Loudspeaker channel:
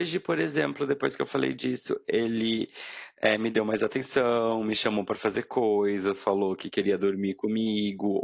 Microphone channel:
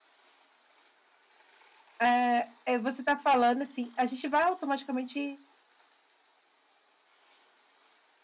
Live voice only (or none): eh eh, você tá falando, assim, a gente vai automaticamente